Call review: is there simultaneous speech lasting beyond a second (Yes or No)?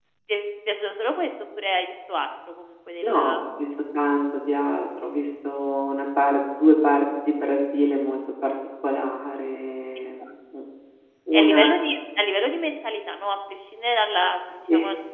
No